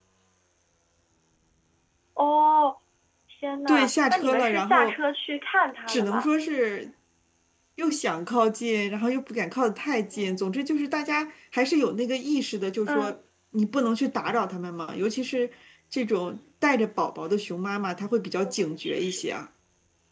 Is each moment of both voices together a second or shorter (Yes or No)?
No